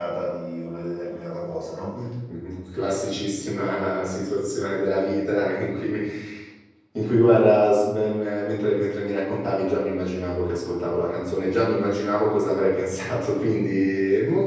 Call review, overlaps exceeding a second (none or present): none